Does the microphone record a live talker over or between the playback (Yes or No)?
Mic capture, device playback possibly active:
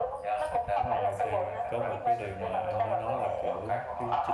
Yes